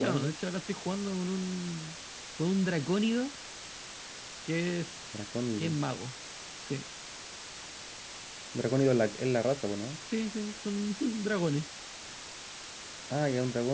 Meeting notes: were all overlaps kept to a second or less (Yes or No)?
Yes